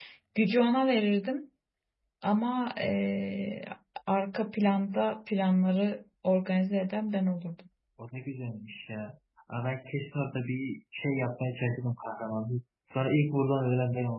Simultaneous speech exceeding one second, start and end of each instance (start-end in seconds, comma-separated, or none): none